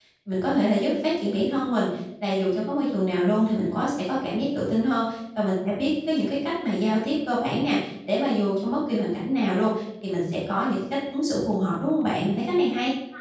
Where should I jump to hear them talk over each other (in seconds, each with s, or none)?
none